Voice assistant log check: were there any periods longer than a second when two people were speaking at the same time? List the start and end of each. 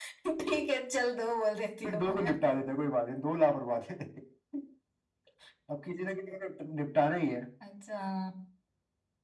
none

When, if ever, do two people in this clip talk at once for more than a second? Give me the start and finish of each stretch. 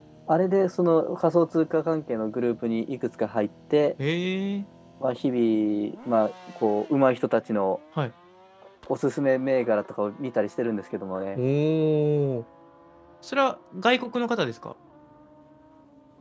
none

